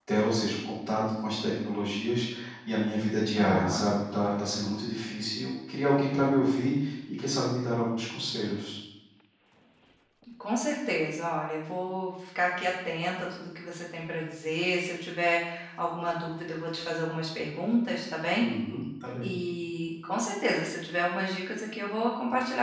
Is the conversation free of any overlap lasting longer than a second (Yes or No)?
Yes